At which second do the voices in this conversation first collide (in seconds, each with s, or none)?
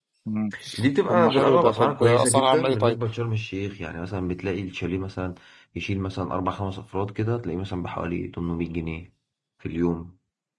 1.1 s